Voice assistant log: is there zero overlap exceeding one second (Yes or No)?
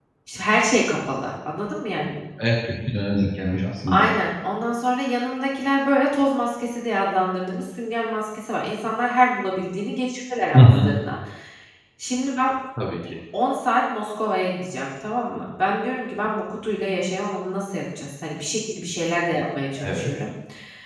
Yes